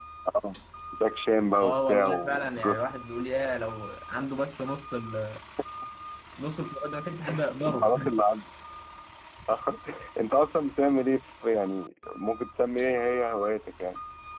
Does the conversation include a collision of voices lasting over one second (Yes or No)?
Yes